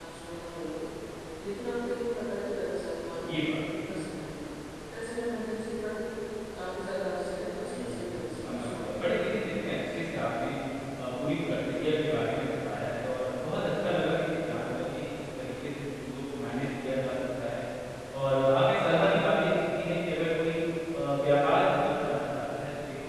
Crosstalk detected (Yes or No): Yes